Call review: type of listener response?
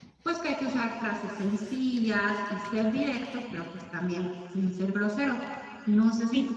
listening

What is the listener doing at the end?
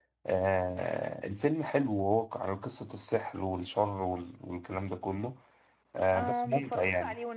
taking over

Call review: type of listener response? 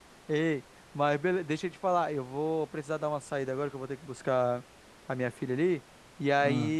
listening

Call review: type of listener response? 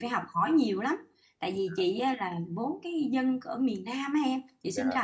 listening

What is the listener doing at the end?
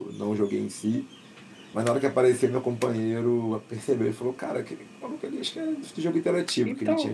taking over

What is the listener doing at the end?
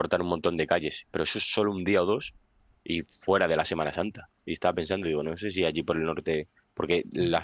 listening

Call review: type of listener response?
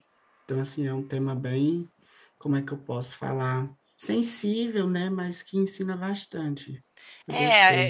taking over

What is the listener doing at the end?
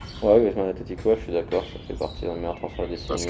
taking over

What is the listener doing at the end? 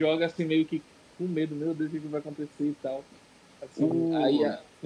listening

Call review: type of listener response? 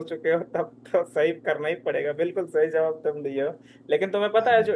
listening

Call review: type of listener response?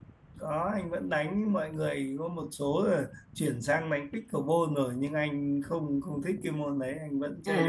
taking over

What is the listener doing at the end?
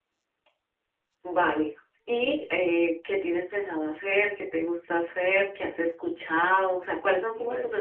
listening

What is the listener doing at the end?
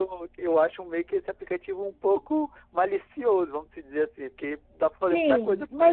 taking over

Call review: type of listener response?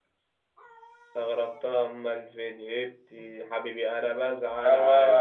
taking over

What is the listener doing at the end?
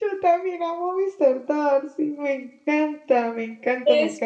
taking over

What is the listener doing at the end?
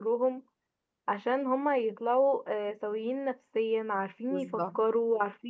listening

